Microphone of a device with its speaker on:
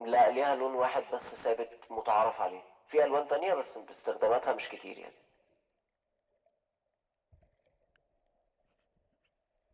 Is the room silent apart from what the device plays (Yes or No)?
Yes